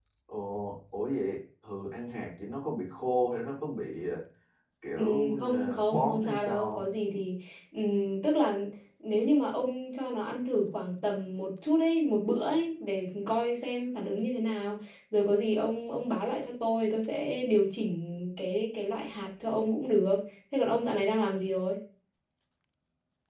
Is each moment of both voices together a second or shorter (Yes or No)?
No